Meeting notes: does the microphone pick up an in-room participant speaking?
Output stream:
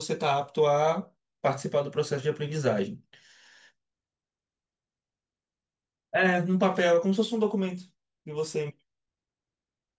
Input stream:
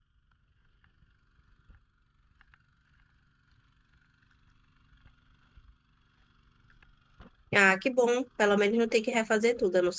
Yes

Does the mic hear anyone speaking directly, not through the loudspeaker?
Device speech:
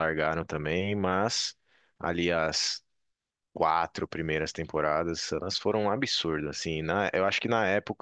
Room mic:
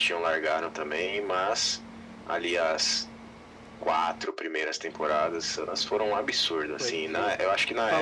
Yes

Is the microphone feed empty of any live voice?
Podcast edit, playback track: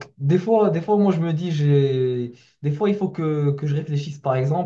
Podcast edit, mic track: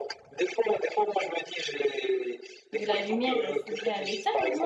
No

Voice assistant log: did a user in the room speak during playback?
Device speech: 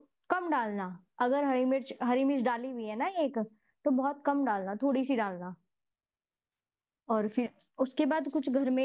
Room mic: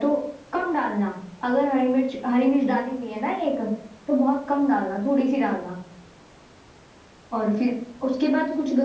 No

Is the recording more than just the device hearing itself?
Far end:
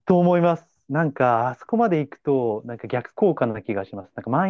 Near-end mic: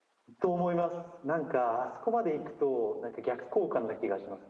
No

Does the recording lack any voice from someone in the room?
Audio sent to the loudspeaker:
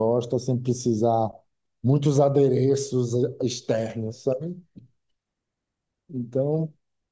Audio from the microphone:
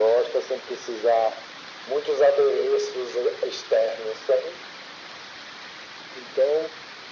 Yes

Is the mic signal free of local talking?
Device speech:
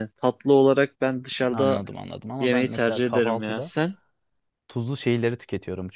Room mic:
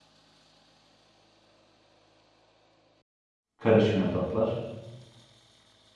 No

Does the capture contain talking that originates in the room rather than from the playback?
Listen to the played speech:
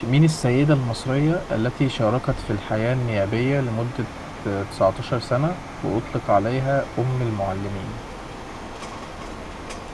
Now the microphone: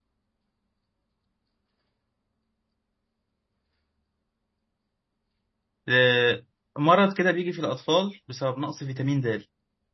Yes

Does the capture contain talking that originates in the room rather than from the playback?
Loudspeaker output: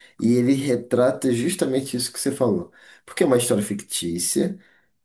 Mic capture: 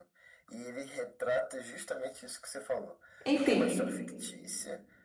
Yes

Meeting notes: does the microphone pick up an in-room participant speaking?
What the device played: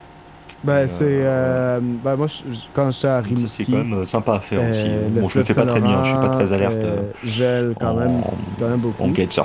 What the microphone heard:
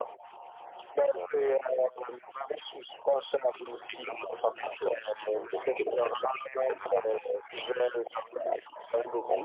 No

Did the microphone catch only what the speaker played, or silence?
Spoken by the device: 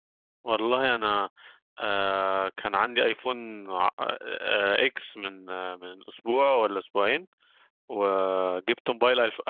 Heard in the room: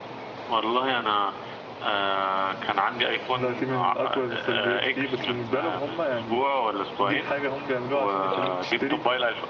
No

